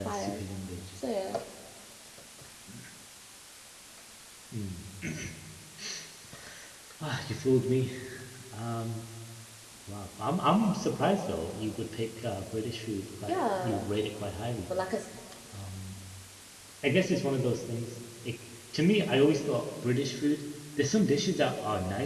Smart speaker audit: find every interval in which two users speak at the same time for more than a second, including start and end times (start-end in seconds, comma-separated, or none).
none